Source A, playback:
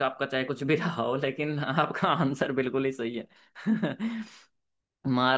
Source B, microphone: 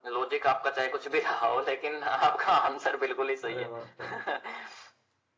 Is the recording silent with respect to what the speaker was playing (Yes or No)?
No